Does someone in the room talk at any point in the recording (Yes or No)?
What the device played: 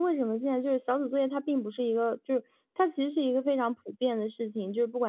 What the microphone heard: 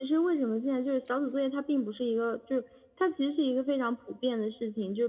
No